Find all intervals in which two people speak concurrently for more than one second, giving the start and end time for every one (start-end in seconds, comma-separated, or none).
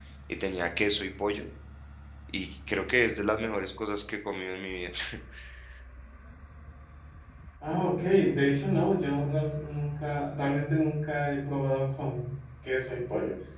none